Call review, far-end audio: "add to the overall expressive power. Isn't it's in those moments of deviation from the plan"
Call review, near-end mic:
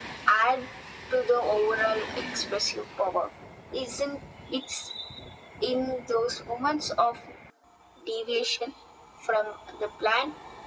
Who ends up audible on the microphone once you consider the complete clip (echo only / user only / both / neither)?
echo only